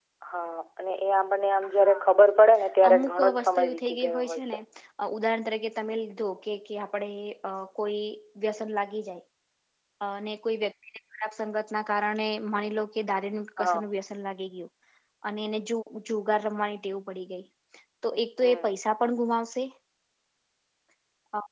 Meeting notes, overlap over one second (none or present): present